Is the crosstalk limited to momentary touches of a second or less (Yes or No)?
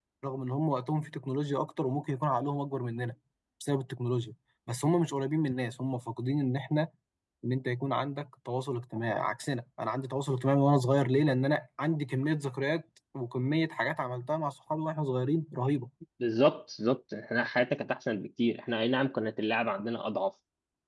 Yes